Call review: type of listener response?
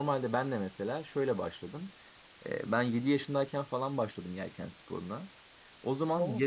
listening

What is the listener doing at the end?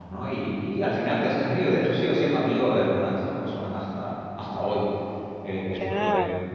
taking over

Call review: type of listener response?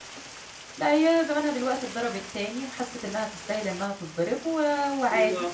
listening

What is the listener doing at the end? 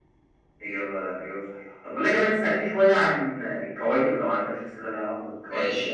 taking over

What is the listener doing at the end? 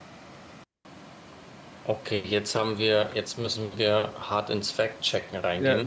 taking over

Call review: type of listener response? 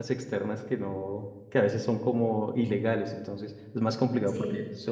listening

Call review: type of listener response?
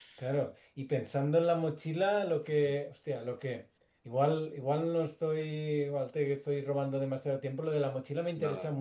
listening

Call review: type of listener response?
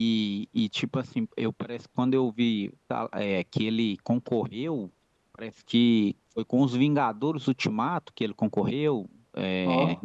listening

